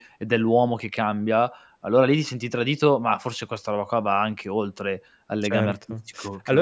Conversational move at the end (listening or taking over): taking over